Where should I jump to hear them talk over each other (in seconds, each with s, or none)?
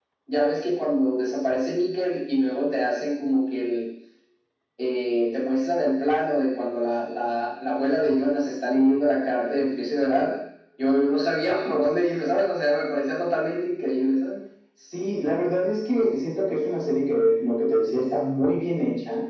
none